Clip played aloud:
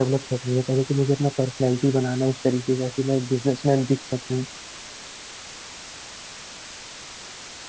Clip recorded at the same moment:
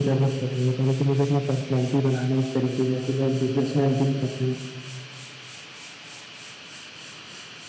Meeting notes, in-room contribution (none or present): none